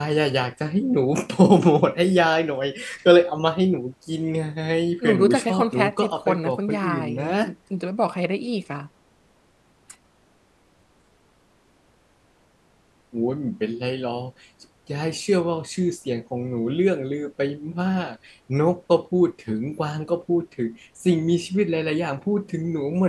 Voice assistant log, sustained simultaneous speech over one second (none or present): present